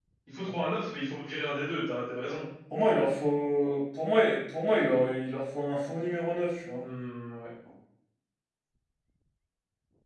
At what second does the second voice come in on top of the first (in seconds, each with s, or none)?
none